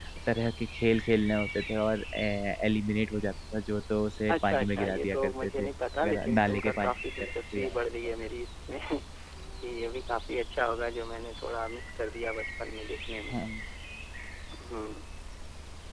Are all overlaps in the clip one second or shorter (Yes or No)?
No